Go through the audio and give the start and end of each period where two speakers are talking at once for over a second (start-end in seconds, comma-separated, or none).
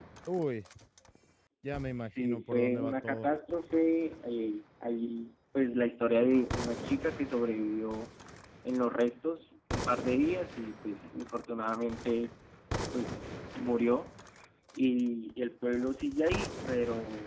1.9-3.3